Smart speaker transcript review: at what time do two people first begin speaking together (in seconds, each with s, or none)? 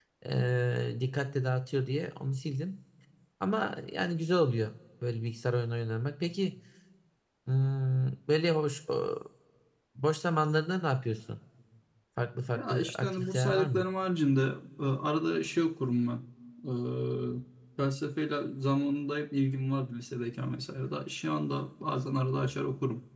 12.6 s